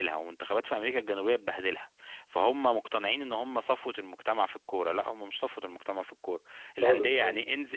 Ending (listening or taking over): listening